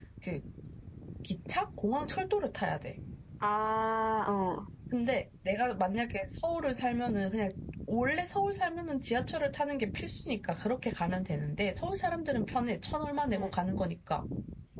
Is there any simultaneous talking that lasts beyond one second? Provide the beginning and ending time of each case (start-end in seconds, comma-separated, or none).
none